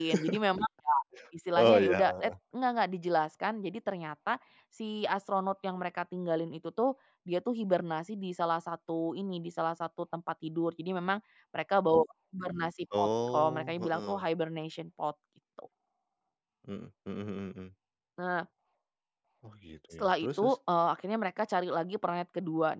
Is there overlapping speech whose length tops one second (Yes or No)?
Yes